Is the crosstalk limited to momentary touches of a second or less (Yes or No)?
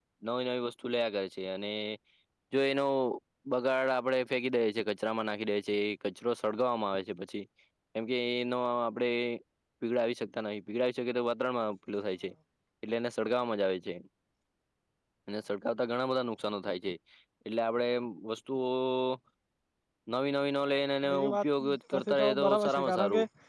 No